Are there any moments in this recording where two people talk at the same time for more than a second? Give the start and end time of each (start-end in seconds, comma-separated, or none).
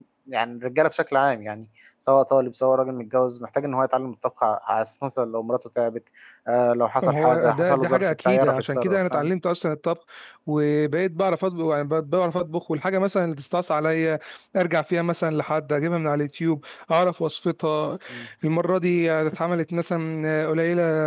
7.0-9.3